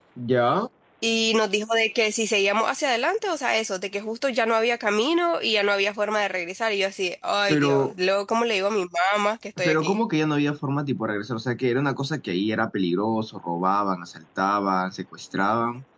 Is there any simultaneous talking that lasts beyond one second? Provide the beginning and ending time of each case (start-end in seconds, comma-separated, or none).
none